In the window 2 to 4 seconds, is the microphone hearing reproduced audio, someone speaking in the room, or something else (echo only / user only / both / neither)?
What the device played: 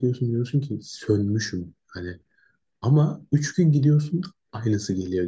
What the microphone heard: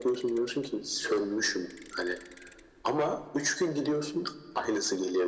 echo only